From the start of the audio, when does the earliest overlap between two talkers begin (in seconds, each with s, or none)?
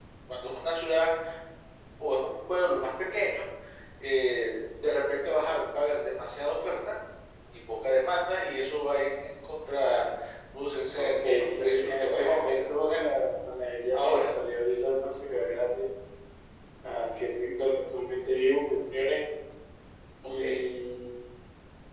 11.0 s